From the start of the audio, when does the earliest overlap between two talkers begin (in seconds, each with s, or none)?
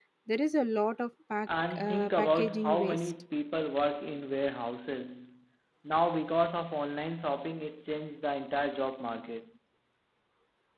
1.5 s